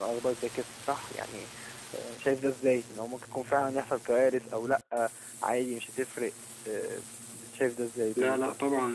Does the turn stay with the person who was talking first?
No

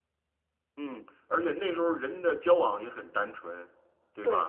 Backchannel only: Yes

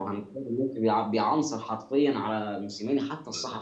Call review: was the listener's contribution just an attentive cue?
Yes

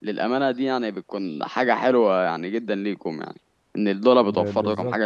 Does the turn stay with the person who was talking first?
No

